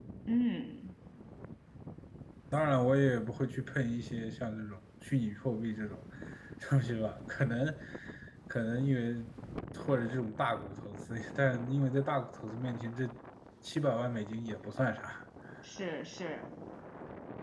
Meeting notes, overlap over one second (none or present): none